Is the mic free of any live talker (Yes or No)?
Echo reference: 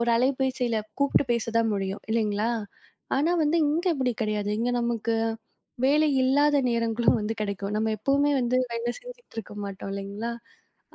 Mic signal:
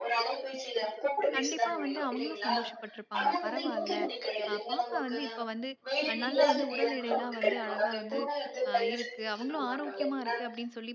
No